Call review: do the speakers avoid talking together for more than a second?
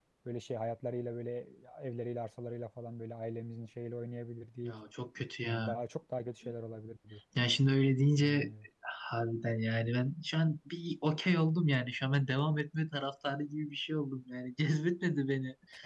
Yes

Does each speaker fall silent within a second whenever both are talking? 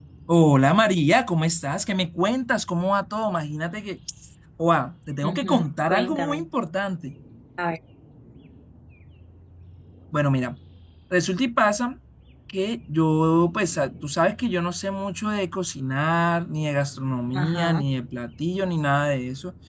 No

